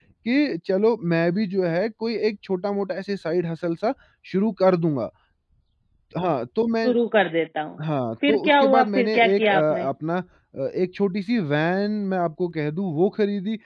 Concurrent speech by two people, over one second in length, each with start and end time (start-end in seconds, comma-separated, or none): 8.3-9.9